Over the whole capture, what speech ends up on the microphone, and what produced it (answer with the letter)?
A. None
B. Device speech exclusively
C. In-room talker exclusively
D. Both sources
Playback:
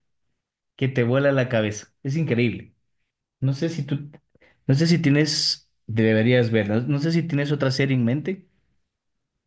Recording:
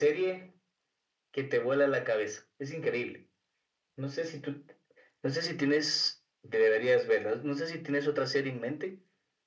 B